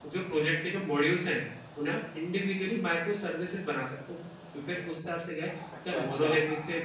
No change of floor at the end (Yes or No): Yes